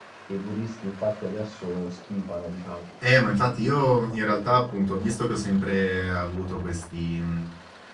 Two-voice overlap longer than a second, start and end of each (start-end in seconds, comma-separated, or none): none